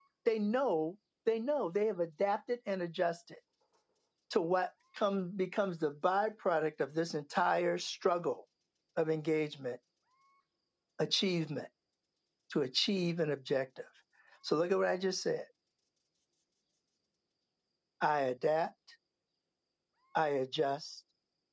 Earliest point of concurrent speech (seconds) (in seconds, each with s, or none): none